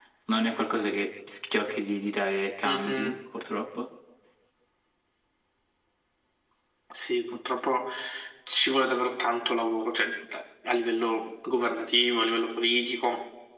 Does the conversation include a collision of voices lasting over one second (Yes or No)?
No